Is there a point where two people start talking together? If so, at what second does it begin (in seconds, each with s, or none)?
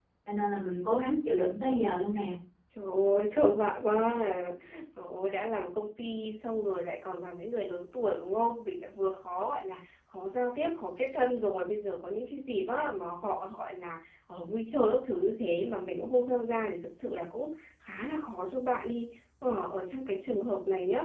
none